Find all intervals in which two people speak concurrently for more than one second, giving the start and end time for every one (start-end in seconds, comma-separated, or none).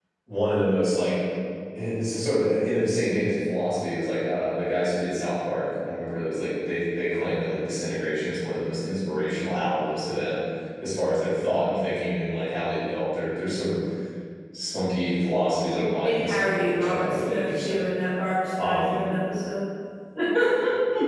16.0-17.8